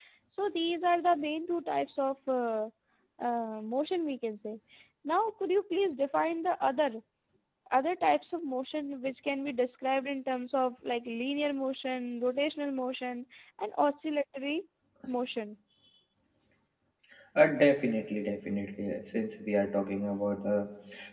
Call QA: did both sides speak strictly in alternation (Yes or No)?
Yes